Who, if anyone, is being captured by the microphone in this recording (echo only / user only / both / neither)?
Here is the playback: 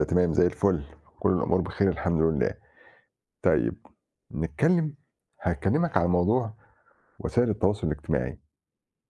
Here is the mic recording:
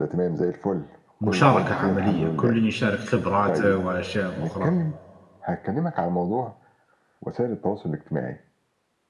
both